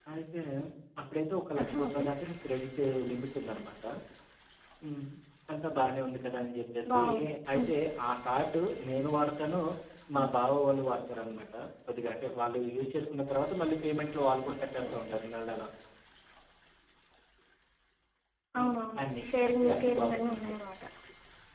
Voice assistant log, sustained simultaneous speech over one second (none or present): present